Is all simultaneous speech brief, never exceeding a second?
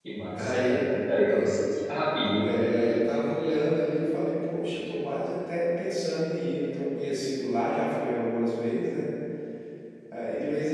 Yes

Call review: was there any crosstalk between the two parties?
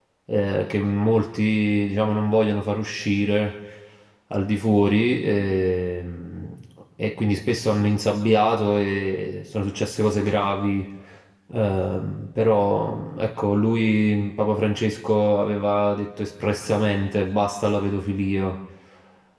No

